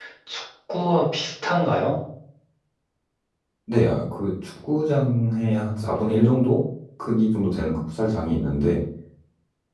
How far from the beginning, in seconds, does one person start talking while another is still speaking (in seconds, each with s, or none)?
none